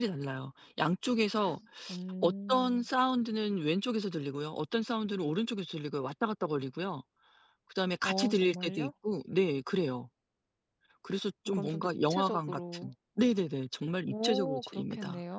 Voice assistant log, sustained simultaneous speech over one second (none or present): present